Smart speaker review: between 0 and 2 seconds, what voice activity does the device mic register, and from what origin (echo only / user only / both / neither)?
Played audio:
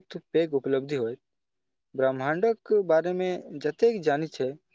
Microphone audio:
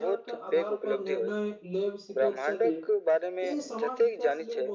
both